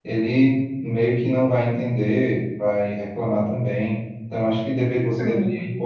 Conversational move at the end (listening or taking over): listening